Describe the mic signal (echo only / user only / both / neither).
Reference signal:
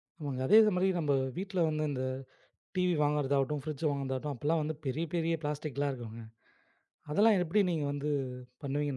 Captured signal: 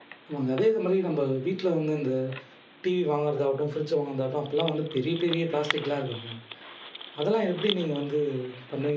echo only